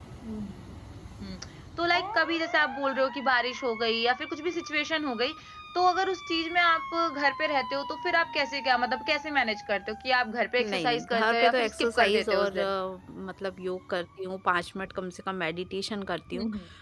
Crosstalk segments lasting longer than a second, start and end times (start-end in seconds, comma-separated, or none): 10.6-12.7